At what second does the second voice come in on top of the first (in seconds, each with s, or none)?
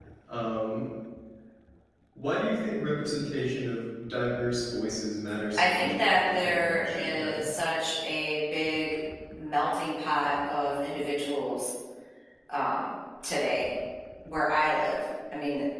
5.6 s